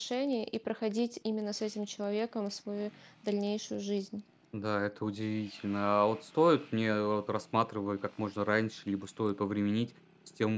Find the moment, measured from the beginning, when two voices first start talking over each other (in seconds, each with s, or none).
none